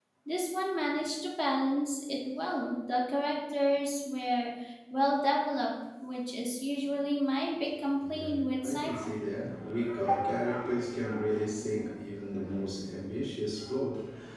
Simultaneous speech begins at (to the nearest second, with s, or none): 8 s